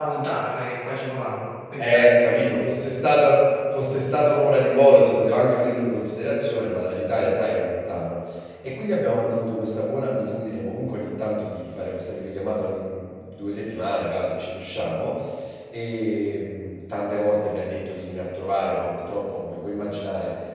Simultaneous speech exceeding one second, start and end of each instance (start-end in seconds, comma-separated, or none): none